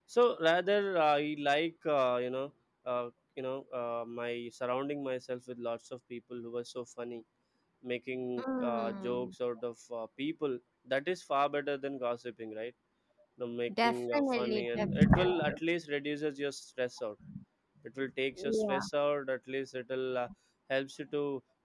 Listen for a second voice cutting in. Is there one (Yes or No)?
Yes